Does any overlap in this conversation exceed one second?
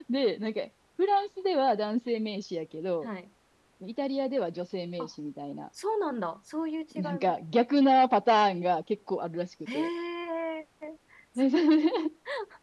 No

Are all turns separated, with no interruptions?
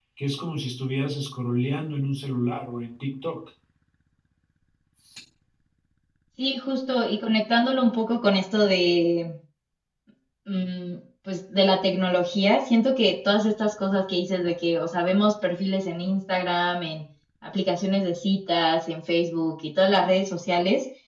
Yes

